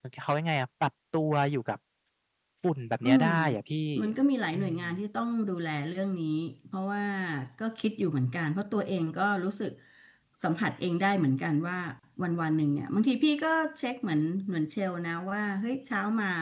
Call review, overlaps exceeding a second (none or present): none